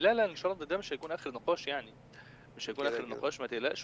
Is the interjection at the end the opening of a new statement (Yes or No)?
No